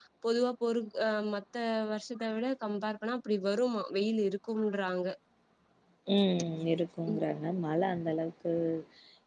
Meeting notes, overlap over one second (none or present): none